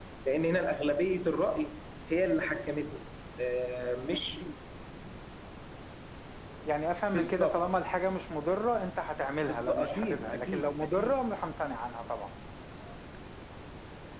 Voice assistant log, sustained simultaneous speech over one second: present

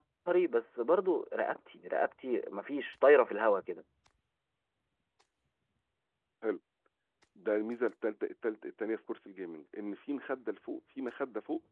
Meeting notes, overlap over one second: none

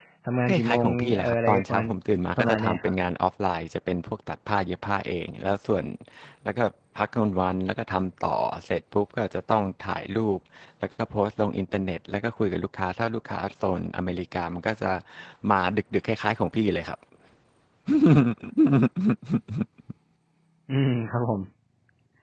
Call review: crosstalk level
present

